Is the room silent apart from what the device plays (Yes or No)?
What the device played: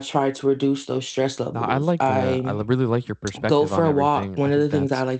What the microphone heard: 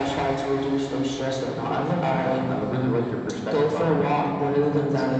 Yes